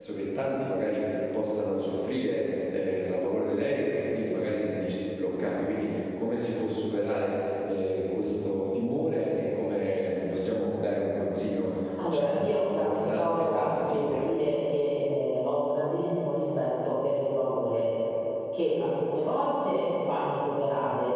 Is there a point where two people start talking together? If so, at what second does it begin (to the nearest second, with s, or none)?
12 s